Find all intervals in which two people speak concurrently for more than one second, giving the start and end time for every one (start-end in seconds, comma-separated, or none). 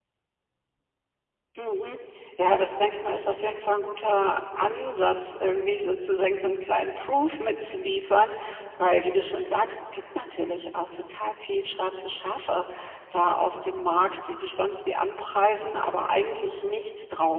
none